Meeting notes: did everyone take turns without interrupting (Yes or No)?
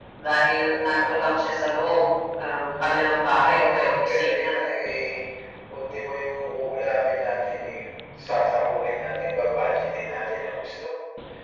No